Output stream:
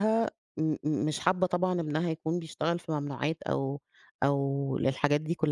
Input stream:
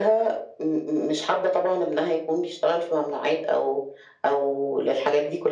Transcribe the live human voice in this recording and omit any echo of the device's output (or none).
none